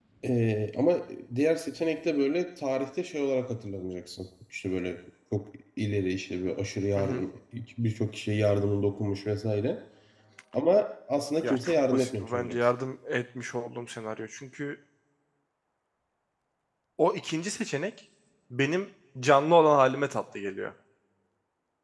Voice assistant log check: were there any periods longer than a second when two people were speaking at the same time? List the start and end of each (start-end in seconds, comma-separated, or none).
11.4-12.7